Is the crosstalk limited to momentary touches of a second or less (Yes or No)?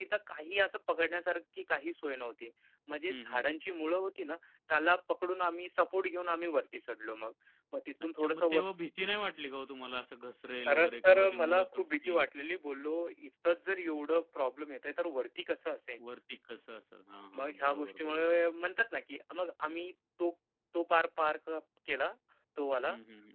No